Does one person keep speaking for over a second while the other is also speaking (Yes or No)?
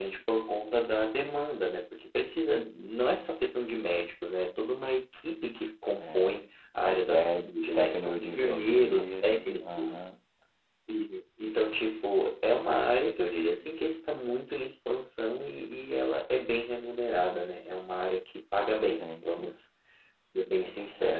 Yes